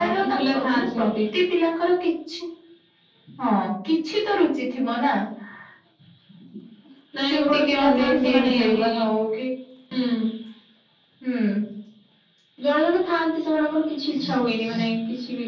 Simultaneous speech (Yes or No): Yes